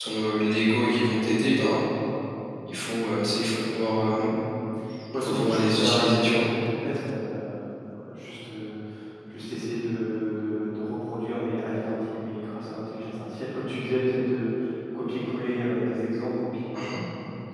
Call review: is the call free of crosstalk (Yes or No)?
No